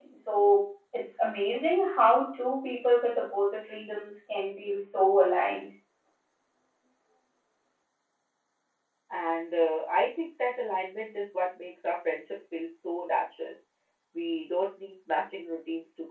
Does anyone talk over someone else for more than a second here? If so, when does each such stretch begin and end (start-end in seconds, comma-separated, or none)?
none